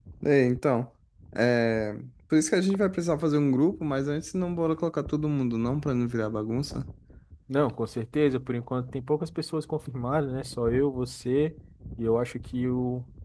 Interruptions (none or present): none